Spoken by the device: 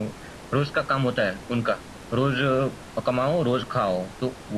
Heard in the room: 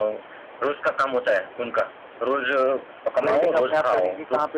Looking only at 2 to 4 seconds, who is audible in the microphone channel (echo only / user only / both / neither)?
both